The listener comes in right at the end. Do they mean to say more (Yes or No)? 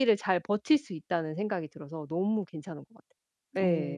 Yes